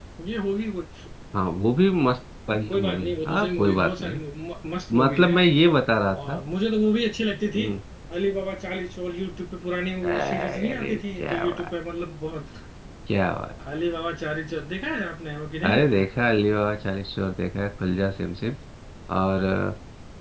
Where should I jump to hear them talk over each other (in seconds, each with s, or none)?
2.7 s